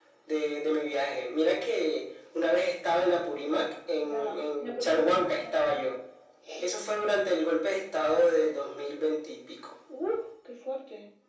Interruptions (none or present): present